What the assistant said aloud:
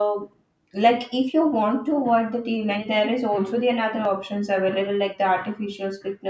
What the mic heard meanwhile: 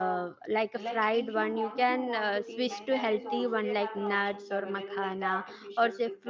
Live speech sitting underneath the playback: No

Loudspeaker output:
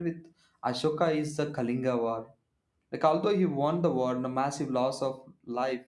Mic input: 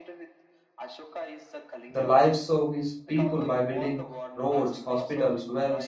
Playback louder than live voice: No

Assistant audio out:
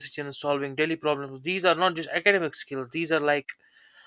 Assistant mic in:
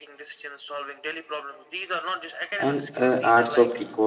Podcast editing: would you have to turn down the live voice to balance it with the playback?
Yes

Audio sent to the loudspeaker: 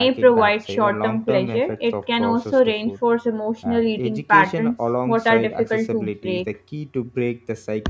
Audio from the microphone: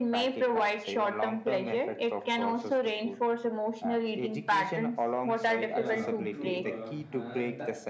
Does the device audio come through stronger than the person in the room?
Yes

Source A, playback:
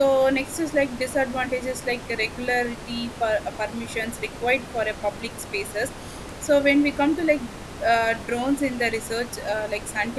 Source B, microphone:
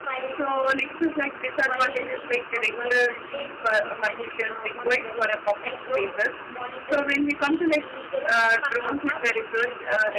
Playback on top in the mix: Yes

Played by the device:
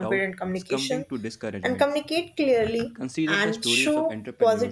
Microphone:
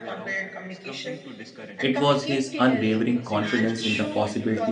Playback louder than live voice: No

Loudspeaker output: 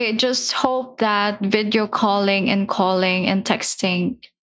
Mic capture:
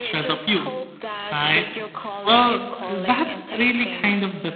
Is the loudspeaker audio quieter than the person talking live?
Yes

